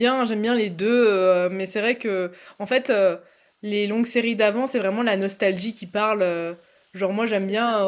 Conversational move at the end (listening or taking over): listening